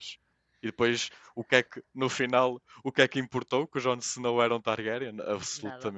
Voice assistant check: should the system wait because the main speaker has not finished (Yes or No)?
No